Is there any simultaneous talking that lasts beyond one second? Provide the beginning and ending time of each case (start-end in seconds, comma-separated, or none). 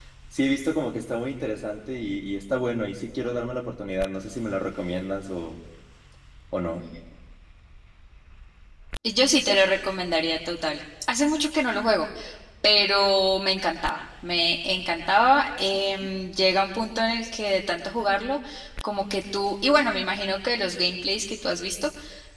none